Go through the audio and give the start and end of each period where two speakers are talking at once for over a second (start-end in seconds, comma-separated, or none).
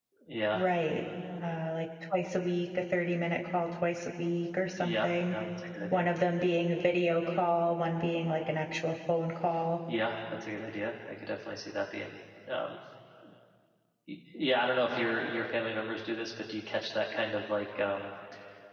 none